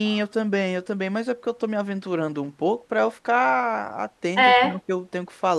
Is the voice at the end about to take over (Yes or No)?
No